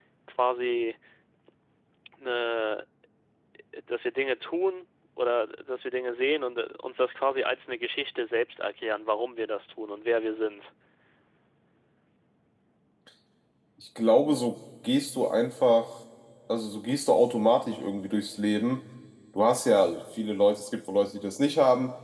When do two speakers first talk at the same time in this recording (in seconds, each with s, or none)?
none